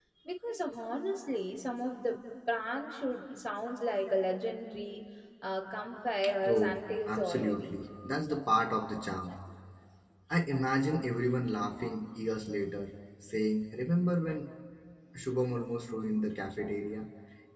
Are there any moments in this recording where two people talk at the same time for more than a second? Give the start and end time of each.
6.4-7.7

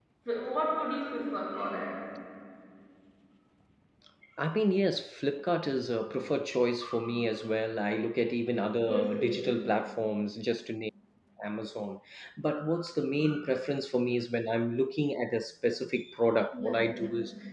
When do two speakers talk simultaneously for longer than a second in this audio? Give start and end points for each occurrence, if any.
none

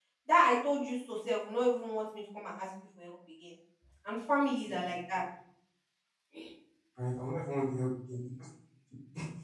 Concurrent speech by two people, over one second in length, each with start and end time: none

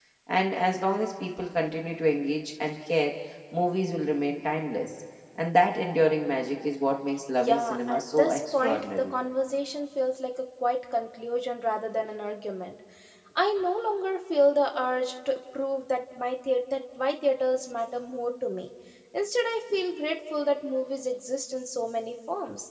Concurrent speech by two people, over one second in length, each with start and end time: 7.4-9.1

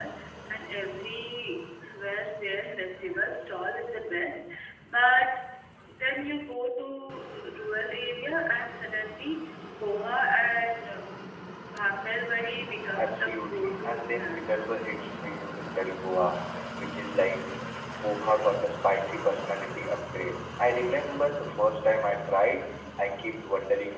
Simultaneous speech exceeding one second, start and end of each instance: 13.0-14.4

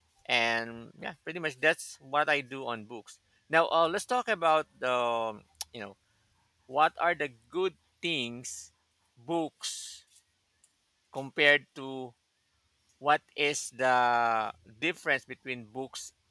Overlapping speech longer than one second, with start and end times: none

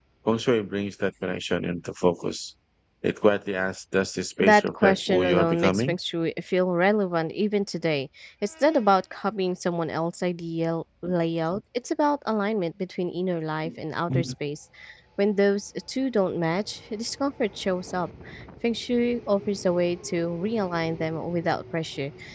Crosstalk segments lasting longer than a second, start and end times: 4.4-5.9

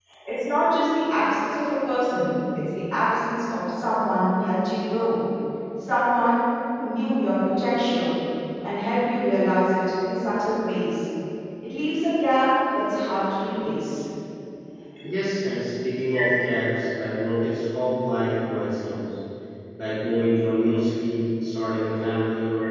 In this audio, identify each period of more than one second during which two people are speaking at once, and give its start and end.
none

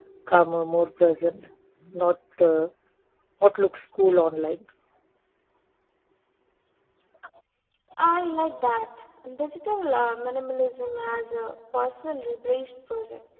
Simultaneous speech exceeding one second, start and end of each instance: none

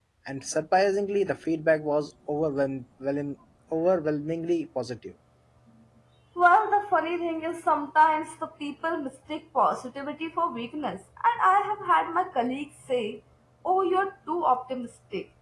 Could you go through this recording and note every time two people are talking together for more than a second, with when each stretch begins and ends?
none

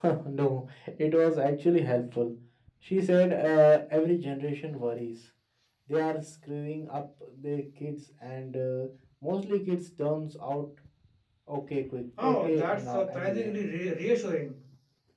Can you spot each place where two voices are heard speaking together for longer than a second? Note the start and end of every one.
12.2-13.5

